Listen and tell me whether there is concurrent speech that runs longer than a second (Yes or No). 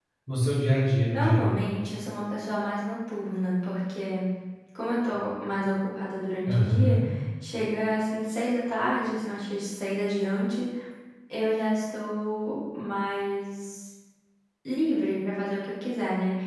No